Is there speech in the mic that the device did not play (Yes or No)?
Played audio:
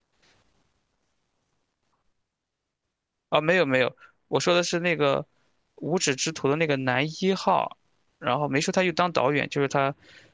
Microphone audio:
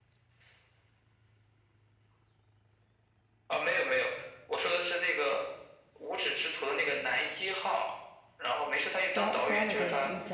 Yes